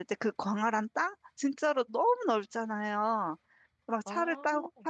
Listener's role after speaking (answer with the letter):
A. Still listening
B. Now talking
A